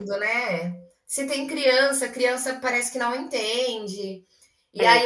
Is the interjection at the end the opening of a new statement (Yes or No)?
No